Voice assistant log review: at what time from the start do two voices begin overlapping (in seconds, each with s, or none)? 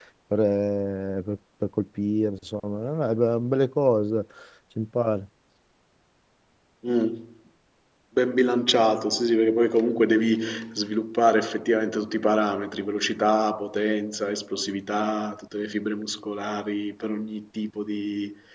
none